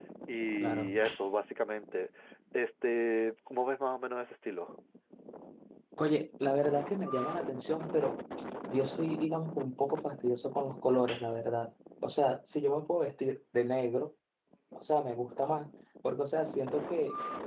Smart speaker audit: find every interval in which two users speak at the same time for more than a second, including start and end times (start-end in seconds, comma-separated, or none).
none